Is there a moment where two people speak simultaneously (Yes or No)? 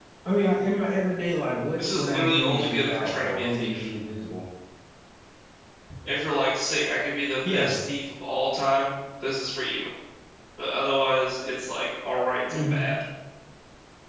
Yes